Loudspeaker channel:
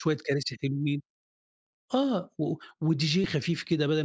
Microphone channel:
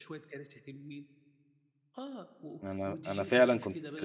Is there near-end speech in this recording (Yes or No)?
Yes